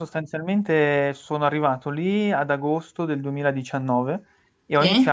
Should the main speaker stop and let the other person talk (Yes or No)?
No